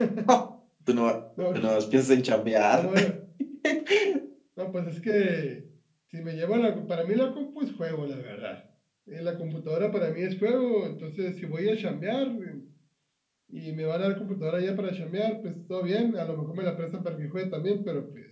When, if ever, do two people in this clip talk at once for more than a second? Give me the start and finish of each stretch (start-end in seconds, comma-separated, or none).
none